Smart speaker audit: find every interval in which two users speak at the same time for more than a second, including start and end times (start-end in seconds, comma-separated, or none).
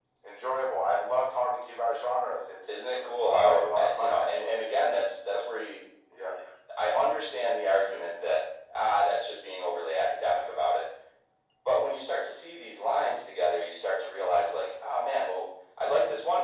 3.3-4.6